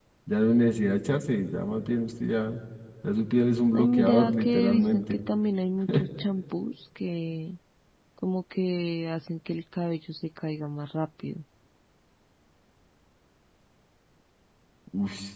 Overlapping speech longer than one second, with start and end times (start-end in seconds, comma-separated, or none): 3.7-5.2